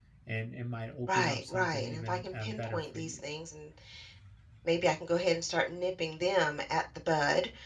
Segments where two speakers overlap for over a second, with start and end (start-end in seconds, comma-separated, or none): 1.1-3.2